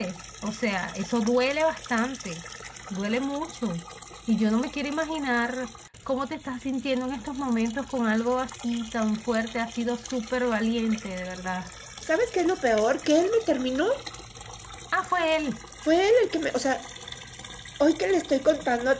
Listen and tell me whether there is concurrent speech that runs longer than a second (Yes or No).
No